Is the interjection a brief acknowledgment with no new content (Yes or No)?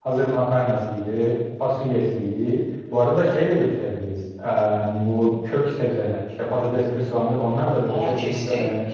No